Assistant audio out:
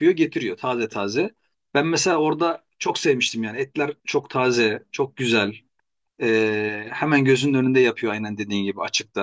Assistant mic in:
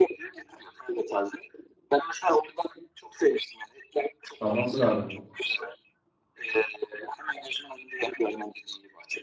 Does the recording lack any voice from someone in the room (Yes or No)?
No